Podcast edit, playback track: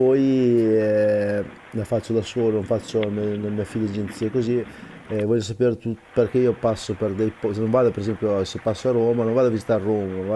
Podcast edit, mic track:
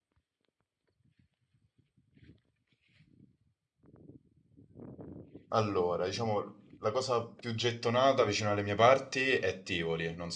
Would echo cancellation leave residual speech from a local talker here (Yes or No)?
Yes